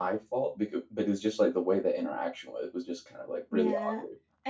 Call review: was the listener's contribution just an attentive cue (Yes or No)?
No